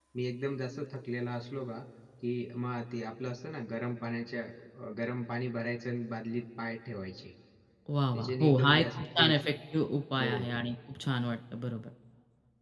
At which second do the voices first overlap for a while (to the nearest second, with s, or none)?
8 s